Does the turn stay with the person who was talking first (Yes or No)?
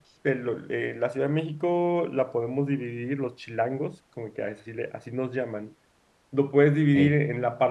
Yes